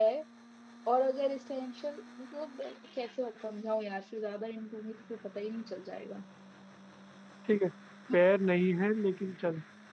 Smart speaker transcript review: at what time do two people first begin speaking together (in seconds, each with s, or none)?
none